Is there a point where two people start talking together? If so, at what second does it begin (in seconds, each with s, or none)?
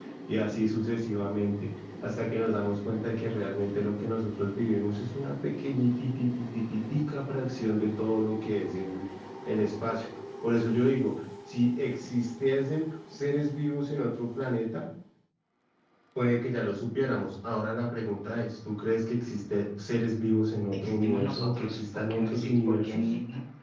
20.7 s